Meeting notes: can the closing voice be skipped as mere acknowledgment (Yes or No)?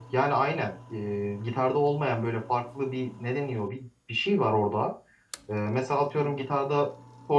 Yes